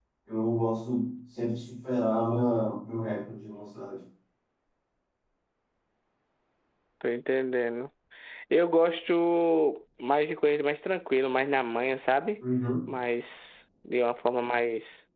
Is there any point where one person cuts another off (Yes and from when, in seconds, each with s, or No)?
No